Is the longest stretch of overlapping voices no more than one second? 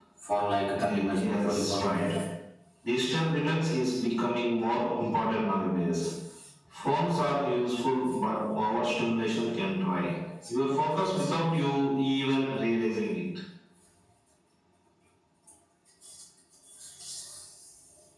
No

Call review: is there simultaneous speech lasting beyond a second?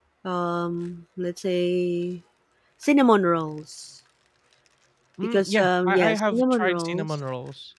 Yes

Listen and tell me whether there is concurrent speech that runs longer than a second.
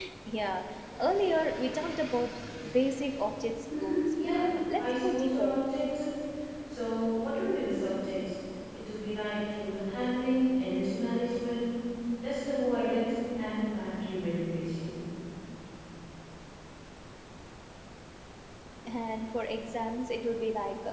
Yes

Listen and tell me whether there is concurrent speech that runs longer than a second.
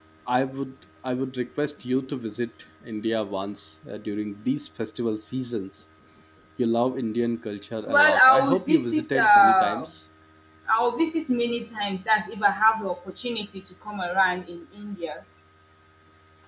Yes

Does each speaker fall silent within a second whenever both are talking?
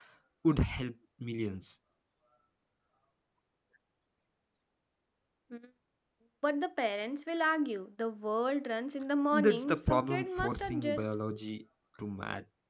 No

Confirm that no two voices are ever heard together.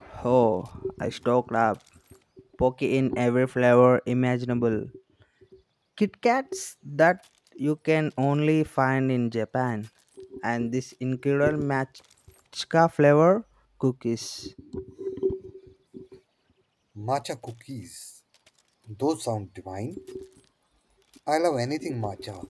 Yes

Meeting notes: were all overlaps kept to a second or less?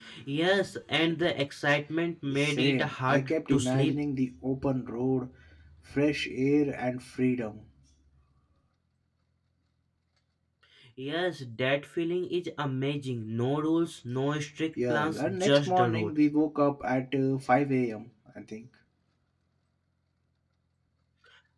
No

